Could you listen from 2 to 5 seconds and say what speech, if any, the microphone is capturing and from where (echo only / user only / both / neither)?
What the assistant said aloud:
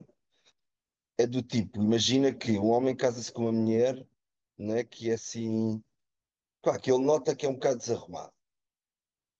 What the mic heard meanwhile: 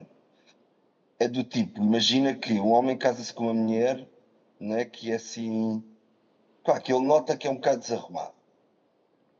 echo only